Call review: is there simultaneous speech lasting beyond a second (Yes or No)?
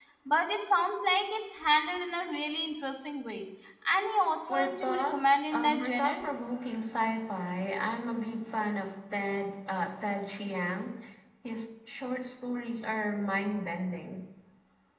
Yes